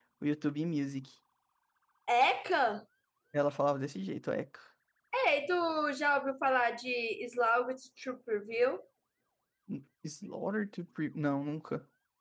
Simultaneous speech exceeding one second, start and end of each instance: none

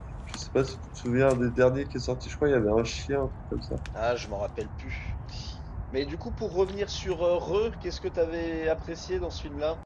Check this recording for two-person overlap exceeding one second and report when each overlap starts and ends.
none

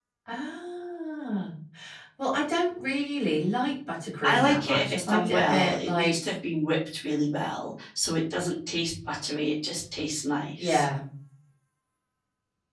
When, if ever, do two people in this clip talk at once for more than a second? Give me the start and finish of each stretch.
4.2-6.2

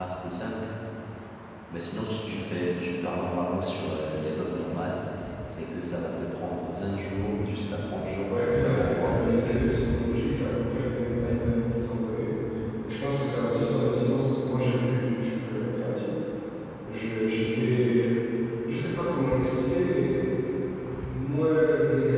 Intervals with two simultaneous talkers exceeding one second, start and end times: 8.3-9.6

